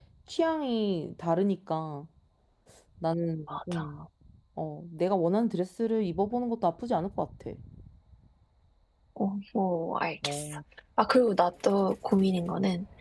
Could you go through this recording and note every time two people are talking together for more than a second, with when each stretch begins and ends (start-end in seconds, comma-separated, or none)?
none